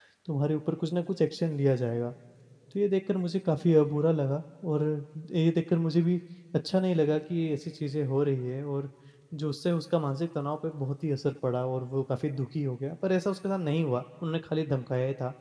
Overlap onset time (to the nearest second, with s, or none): none